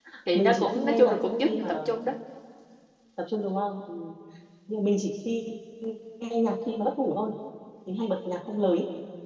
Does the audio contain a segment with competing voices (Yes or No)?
Yes